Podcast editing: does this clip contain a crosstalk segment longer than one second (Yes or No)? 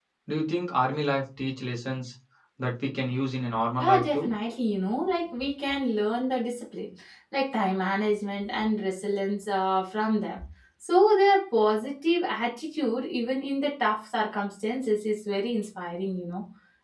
No